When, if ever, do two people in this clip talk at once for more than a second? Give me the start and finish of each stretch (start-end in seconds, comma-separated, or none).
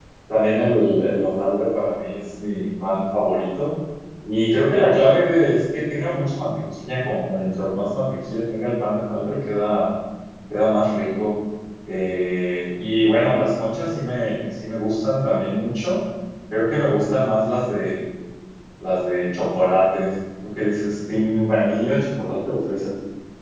none